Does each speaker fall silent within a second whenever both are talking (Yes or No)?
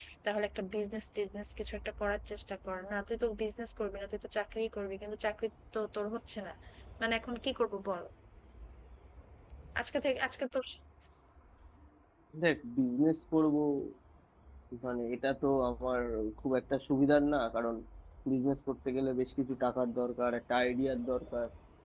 Yes